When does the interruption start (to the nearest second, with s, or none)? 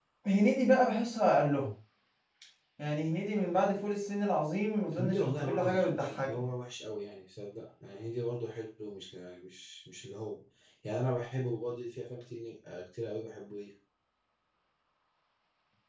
5 s